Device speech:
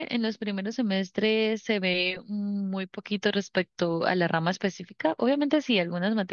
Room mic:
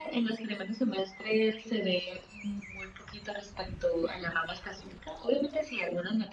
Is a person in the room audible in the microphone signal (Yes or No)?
No